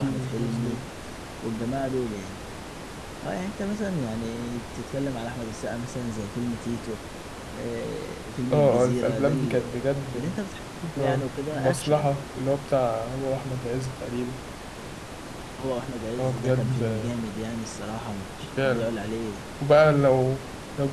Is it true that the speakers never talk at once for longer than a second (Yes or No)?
No